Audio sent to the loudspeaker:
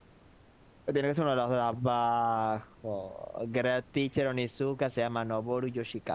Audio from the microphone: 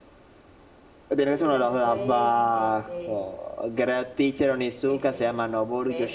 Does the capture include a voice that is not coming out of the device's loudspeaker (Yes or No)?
Yes